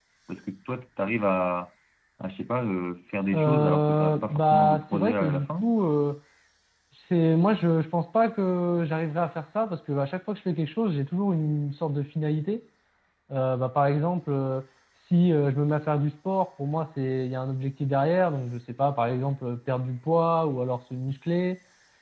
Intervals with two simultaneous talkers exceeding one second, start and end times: 3.3-5.7

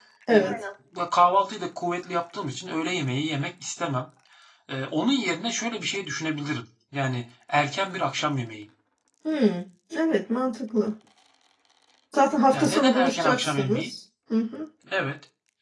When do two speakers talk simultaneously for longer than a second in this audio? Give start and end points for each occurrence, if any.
12.5-13.9

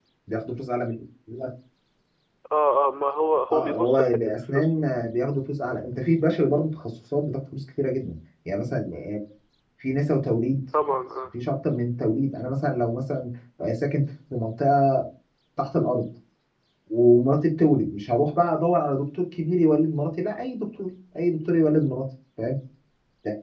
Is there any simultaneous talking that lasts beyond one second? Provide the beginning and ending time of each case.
3.5-4.8

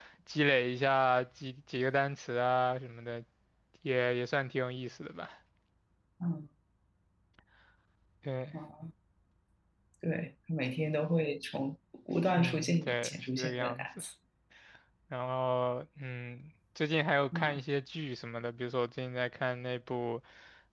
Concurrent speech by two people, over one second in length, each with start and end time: 12.4-13.9

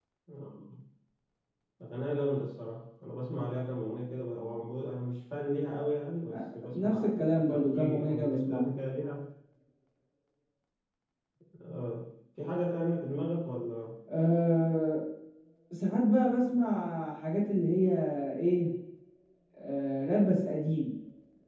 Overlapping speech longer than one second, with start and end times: 6.3-8.7

